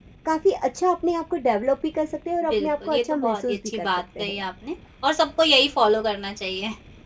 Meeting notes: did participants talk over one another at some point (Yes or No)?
Yes